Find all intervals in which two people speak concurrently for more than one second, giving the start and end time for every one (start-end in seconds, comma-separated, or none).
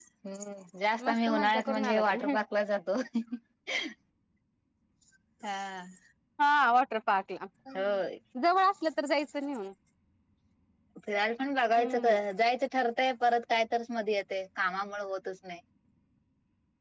1.1-2.4